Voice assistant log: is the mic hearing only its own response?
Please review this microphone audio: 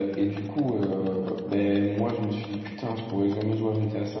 Yes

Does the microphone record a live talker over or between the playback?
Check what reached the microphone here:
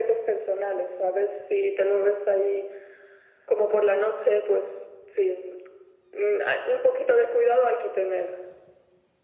No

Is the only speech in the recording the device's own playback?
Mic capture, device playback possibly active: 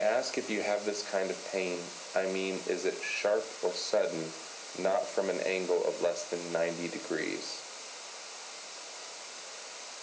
Yes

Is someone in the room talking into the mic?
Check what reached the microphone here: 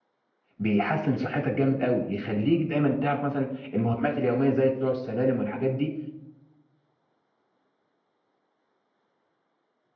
Yes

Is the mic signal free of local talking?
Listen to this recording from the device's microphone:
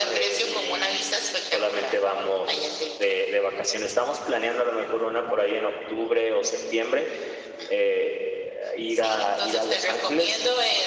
Yes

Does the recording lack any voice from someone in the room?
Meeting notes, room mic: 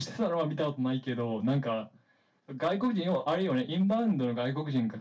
Yes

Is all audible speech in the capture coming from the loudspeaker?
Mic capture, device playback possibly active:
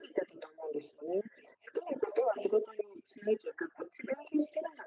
Yes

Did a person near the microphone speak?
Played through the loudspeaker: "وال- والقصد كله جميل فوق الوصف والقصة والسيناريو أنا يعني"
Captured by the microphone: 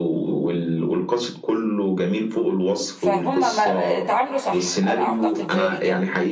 Yes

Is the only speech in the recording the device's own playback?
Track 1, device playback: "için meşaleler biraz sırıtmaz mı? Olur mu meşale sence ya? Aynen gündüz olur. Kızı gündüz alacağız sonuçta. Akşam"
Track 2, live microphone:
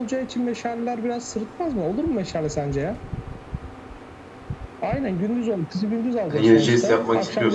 No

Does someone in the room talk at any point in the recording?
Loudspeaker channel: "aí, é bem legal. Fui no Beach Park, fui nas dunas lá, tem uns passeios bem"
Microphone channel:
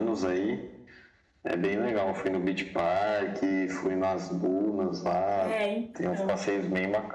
Yes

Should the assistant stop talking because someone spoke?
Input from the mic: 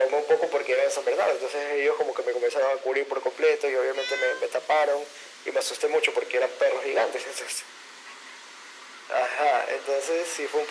No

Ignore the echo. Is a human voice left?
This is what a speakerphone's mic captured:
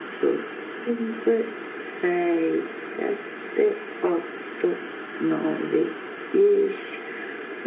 No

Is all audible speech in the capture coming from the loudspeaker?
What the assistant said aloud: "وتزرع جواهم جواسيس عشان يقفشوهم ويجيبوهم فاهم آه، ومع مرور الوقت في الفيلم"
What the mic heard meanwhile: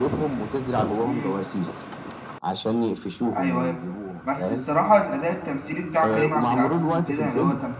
No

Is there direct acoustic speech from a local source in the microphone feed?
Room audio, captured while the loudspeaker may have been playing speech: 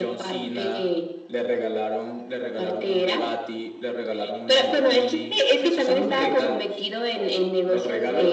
No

